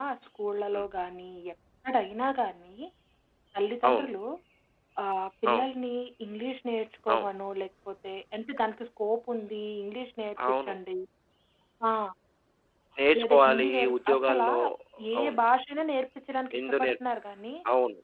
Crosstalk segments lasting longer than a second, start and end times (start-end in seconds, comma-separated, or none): 13.2-14.5